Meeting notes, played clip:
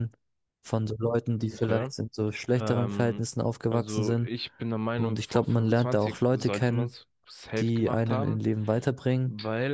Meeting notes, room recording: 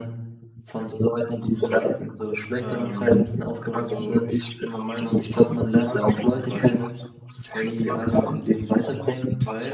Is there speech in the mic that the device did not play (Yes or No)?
No